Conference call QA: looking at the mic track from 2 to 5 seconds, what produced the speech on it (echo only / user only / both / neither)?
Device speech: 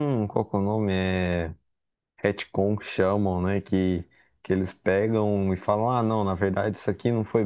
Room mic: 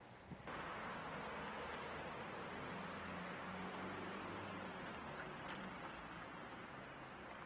neither